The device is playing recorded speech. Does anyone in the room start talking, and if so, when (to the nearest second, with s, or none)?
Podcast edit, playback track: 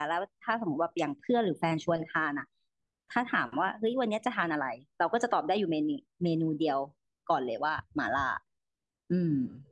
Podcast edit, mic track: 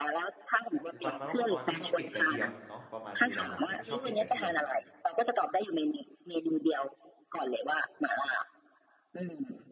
1 s